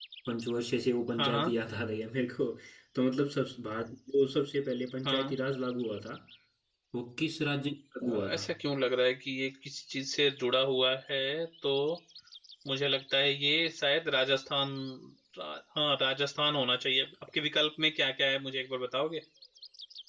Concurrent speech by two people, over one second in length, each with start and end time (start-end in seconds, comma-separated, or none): none